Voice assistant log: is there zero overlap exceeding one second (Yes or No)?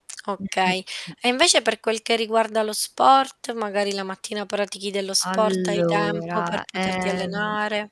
No